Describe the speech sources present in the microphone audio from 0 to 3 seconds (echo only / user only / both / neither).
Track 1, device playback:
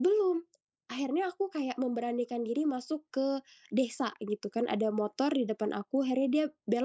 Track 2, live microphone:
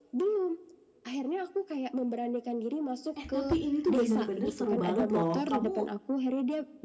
echo only